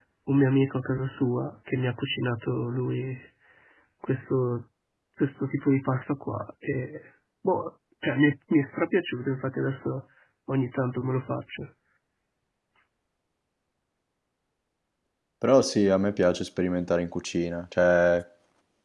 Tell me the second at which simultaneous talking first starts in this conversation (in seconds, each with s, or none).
none